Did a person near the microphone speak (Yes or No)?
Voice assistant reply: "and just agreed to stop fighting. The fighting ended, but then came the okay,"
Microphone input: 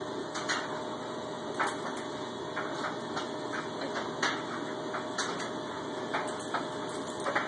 No